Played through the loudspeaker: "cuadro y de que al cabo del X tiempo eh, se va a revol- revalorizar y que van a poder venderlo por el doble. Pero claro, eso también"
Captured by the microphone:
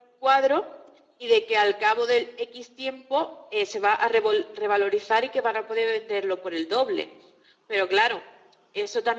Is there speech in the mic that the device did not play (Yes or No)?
No